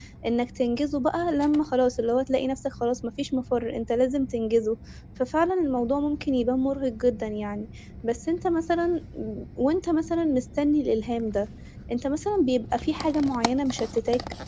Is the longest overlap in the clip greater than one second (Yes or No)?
No